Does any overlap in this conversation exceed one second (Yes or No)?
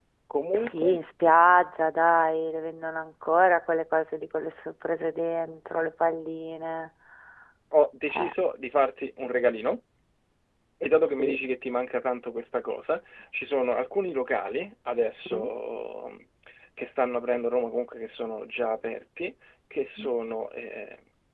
No